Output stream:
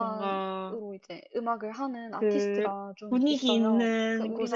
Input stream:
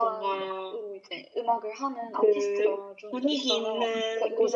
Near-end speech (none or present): none